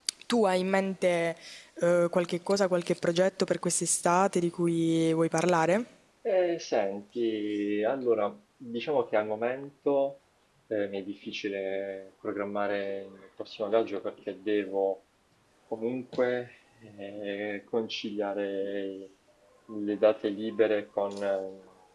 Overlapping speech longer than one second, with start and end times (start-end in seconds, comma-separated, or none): none